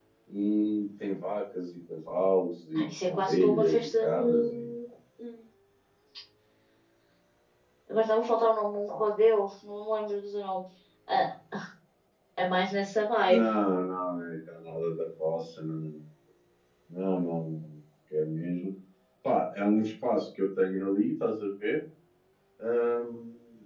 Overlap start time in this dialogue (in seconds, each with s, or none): 2.8 s